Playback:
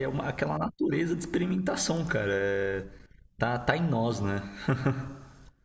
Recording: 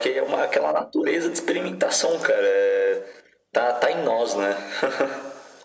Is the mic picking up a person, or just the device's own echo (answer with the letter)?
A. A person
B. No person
B